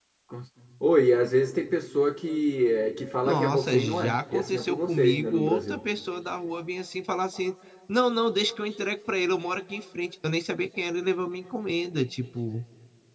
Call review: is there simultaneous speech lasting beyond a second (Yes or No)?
Yes